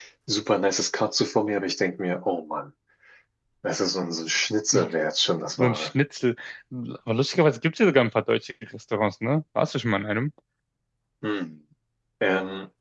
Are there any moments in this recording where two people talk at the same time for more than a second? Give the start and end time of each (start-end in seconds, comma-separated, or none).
none